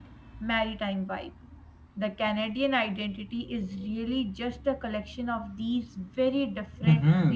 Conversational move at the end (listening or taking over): taking over